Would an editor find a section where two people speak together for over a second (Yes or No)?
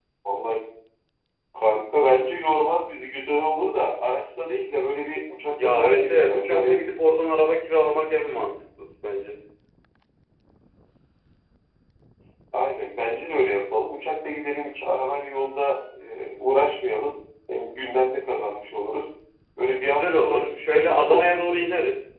Yes